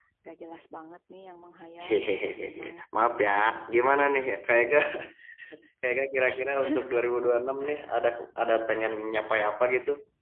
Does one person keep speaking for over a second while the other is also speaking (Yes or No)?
No